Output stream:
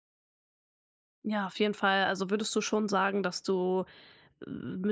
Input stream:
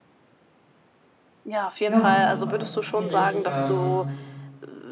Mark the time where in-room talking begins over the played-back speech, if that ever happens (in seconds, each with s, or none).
1.9 s